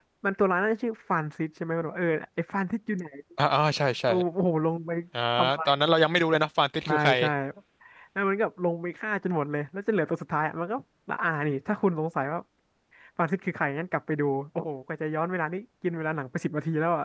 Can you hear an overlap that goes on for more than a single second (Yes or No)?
No